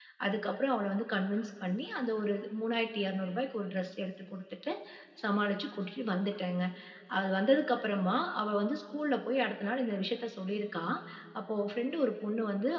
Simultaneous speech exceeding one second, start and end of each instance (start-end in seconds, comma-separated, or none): none